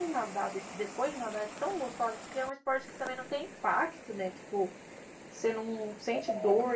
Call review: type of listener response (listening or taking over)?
listening